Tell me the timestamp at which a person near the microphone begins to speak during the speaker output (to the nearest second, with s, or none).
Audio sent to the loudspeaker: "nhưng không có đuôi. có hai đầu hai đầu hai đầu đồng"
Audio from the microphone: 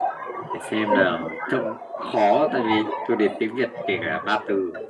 1 s